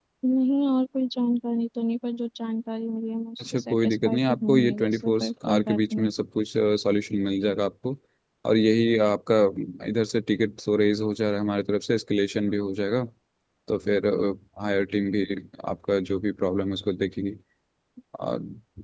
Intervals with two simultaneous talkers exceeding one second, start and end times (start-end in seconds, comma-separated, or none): 3.4-6.1